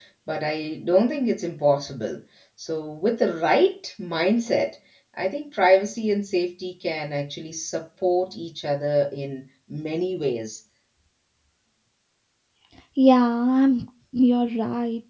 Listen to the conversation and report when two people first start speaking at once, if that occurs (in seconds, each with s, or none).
none